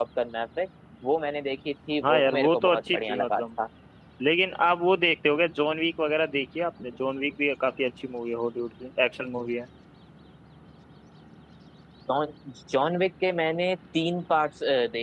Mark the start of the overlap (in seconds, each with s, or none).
2.0 s